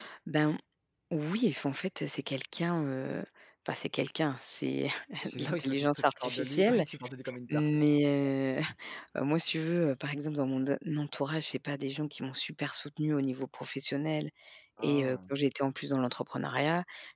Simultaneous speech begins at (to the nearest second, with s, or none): 5 s